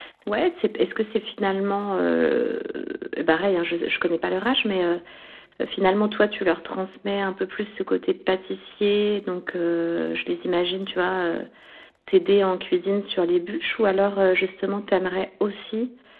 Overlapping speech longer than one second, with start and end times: none

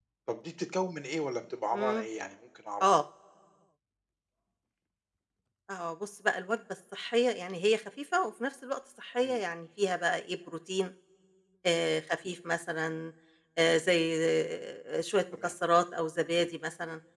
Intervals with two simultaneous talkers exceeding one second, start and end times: none

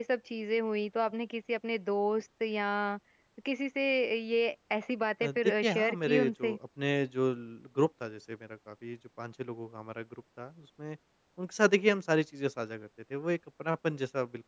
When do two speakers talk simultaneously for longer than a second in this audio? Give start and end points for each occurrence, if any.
5.2-6.6

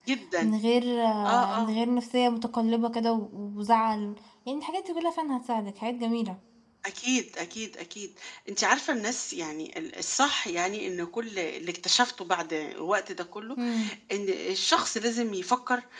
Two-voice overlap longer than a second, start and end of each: none

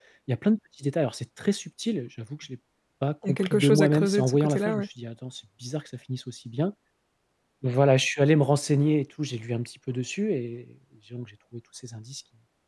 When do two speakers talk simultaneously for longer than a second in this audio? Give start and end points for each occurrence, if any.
3.2-4.9

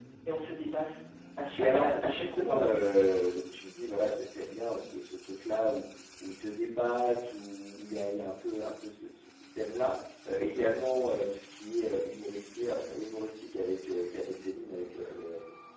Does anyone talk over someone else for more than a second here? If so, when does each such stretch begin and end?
1.6-2.8

